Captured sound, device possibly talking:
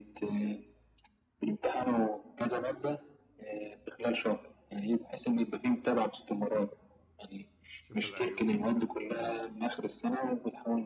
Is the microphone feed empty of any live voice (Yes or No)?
No